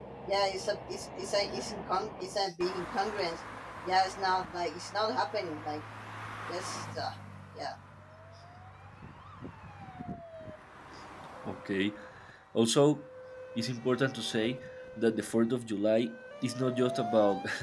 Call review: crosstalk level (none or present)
none